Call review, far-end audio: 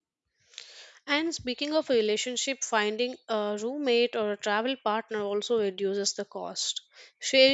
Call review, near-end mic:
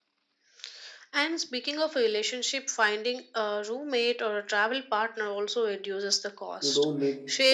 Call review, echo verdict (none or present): present